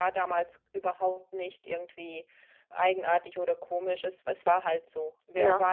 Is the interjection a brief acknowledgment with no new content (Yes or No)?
Yes